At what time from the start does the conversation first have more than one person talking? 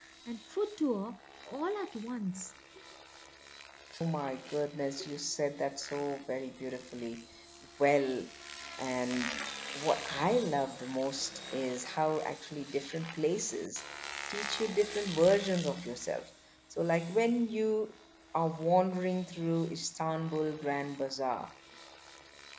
none

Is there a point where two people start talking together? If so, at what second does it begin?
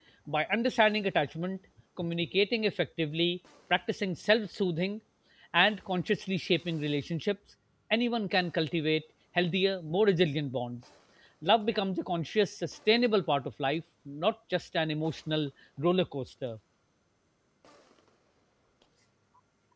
none

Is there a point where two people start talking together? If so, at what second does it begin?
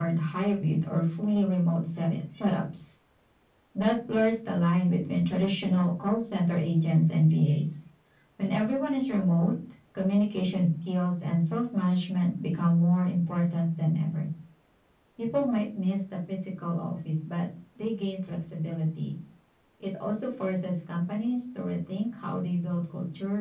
none

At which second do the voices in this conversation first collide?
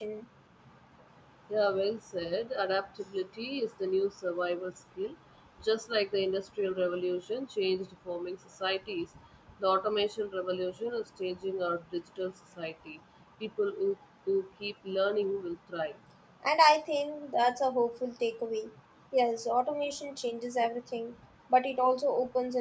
none

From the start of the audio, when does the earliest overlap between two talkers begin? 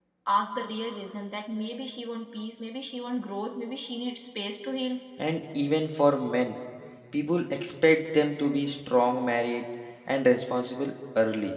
none

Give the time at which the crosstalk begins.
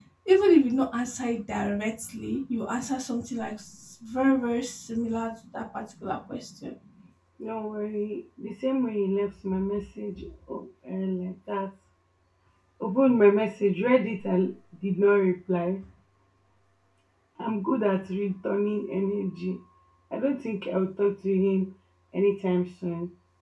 none

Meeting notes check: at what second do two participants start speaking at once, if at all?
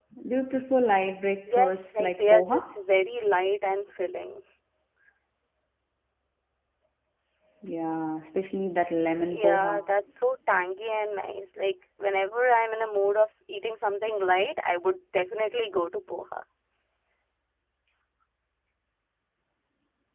1 s

